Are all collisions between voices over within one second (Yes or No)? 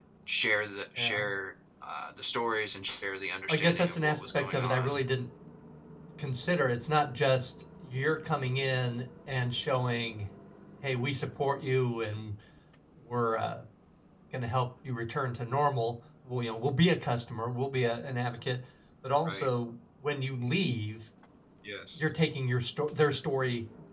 No